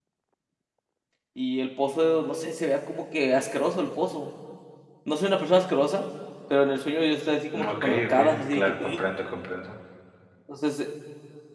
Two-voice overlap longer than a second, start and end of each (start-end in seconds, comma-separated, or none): 7.7-9.0